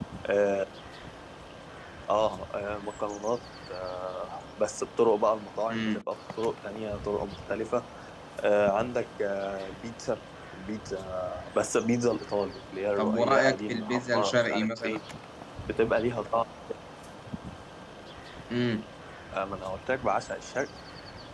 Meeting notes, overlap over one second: present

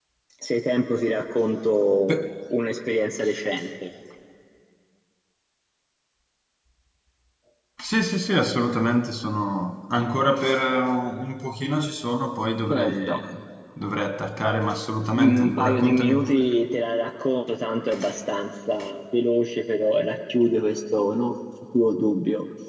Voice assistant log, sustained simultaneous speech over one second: present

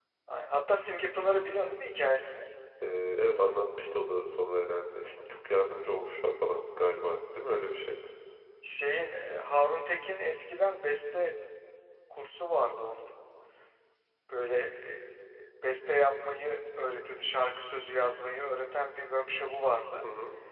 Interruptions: none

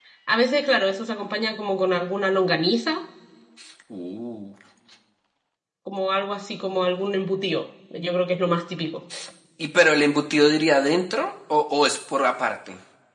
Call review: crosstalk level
none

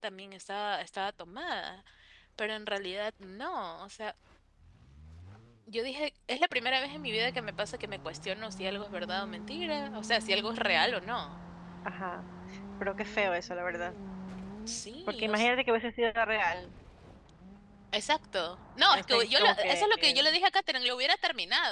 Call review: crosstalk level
present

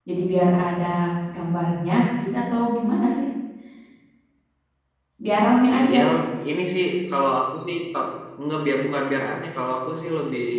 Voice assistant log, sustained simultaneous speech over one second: none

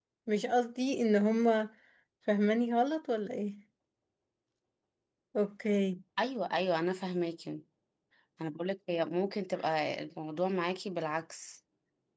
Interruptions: none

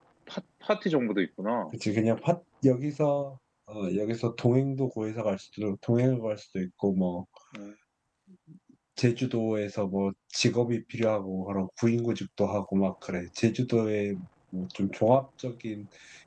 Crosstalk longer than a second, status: none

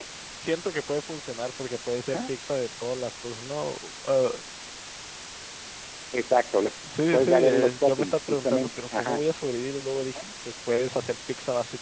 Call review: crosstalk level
present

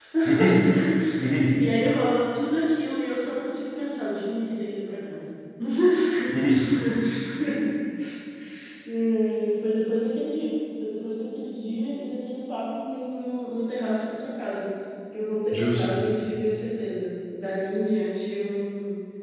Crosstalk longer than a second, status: none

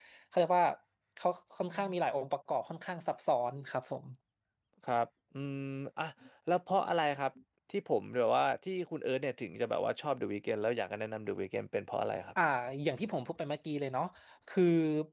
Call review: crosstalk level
none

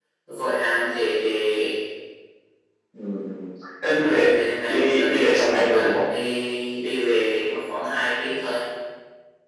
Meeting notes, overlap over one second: present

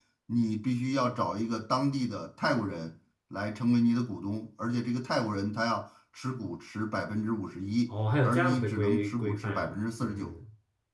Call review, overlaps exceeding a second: present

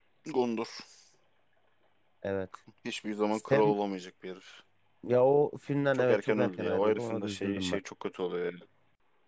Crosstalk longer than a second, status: present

